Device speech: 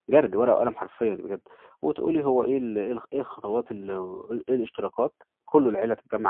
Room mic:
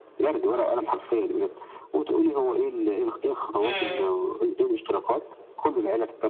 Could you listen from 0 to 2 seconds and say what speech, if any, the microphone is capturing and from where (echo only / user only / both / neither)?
echo only